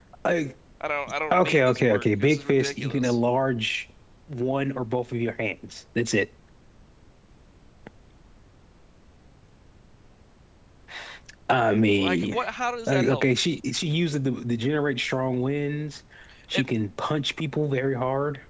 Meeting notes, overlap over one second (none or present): present